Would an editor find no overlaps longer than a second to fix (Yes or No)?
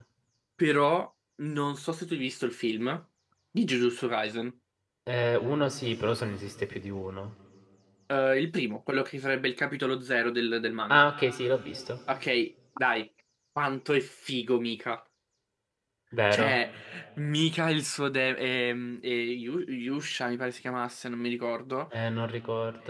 Yes